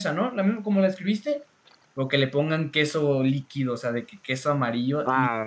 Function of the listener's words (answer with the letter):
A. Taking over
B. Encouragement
A